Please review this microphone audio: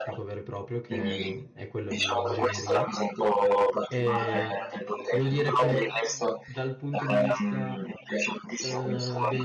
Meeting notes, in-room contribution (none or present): present